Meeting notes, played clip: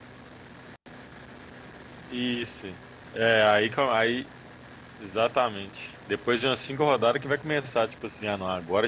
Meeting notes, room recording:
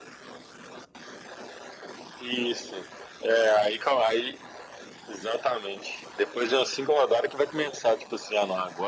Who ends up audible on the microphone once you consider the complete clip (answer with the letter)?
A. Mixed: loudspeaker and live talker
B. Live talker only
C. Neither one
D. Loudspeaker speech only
D